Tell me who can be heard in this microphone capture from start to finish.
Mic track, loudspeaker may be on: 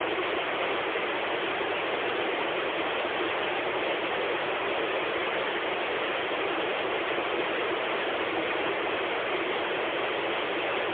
neither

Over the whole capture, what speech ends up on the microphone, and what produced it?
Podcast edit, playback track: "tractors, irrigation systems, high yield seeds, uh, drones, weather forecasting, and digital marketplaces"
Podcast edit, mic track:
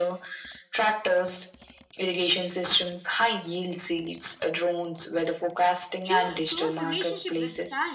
both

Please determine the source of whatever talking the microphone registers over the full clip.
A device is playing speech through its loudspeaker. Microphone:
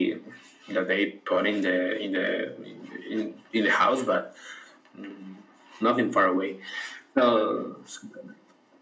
echo only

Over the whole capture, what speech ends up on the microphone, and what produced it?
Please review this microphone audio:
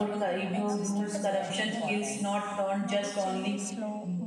both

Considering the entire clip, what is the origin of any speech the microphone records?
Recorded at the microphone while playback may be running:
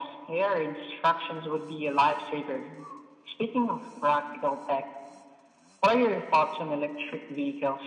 echo only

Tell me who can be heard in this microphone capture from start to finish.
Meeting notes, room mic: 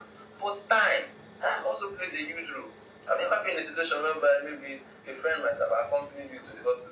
echo only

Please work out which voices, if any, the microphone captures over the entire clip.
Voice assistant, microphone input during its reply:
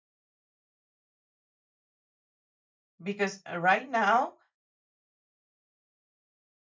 user only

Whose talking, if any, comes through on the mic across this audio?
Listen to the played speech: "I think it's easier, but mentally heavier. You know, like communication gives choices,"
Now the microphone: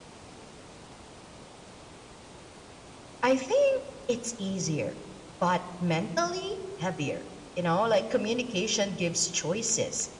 echo only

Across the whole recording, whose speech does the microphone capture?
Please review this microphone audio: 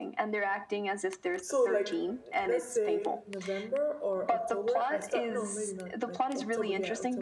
both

